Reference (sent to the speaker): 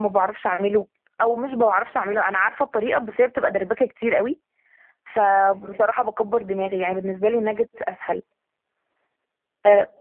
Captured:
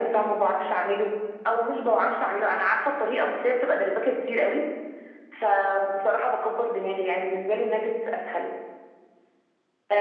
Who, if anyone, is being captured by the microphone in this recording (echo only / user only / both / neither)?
echo only